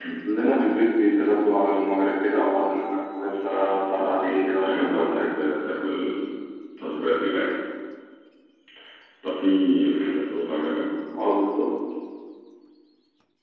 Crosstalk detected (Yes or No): Yes